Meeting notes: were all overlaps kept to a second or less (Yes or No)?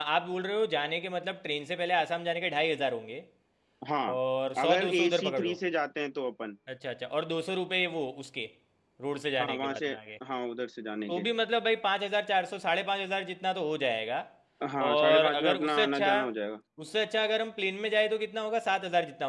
No